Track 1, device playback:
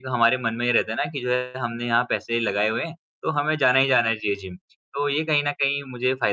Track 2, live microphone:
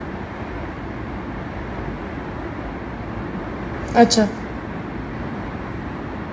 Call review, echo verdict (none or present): none